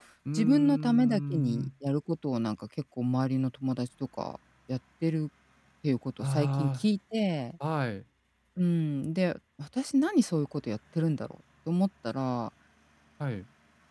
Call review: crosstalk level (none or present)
present